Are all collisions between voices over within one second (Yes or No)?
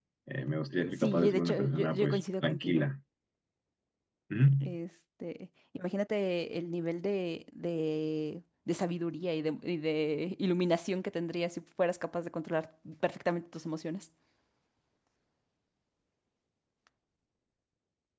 No